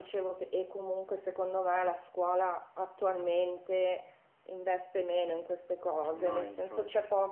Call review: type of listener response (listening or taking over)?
listening